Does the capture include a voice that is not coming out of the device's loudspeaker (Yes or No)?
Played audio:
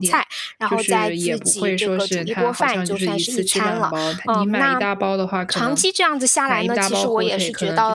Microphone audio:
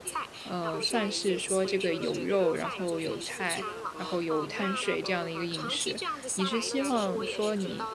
Yes